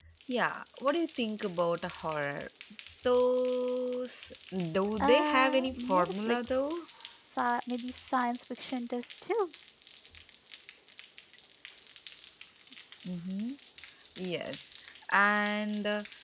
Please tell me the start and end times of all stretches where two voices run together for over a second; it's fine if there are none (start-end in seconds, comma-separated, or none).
5.0-6.8